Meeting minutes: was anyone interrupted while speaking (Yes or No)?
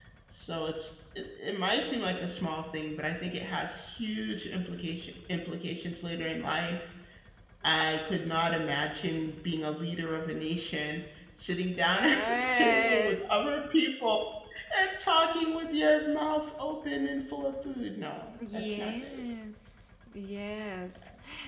Yes